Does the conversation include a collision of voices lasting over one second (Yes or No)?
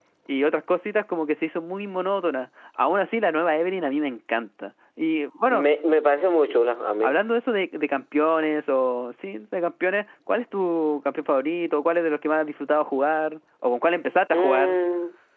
No